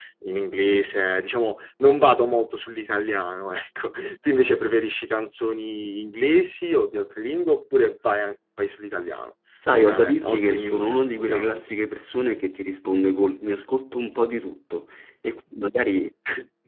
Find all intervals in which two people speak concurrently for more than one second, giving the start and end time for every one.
9.7-11.7

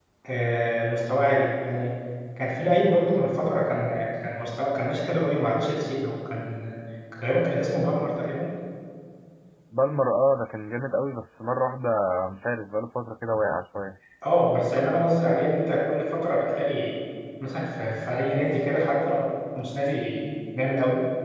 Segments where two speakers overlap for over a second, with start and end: none

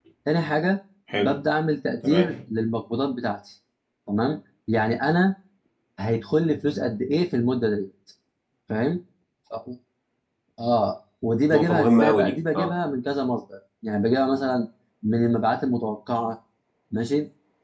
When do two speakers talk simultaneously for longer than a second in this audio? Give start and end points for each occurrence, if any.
11.5-12.7

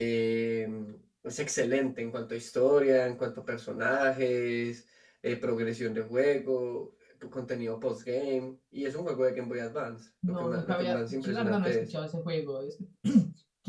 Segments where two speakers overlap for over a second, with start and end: 10.3-11.9

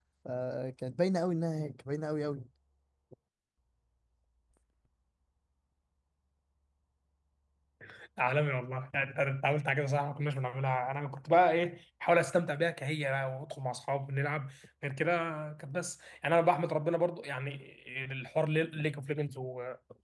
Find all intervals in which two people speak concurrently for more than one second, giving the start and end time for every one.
none

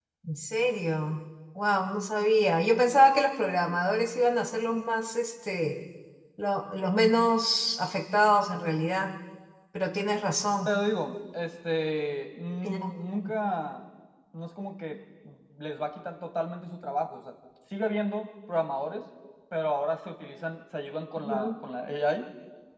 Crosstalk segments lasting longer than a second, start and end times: none

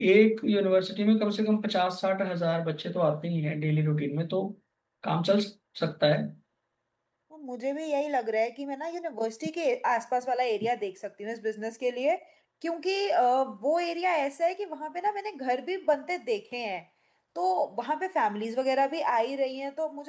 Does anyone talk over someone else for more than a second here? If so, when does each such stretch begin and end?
none

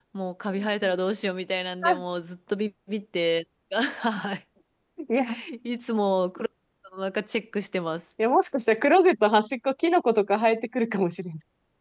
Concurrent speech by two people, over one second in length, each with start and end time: none

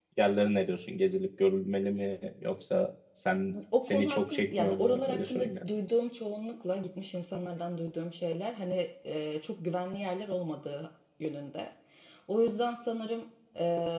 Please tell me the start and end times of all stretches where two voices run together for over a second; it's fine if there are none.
3.8-5.5

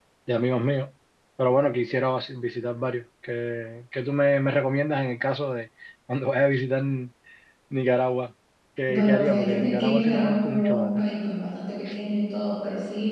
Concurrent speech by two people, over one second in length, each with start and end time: 8.9-11.0

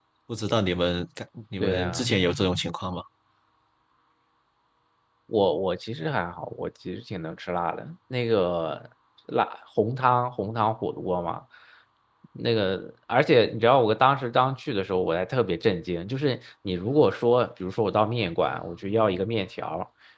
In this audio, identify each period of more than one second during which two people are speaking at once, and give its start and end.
none

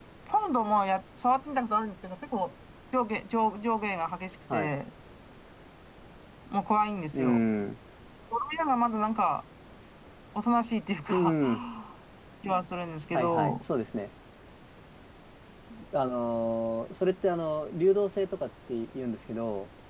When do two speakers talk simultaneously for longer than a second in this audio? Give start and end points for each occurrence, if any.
none

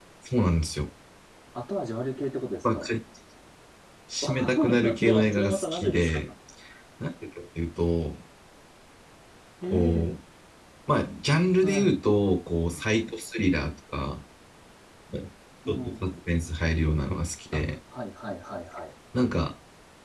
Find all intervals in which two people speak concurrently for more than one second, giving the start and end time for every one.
4.2-6.2

